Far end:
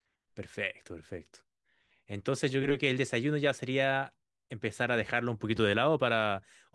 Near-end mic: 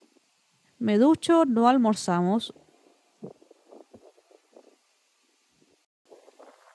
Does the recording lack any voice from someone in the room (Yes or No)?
No